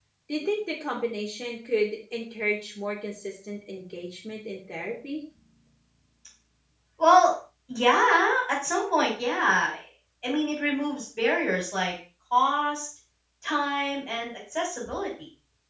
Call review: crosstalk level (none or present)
none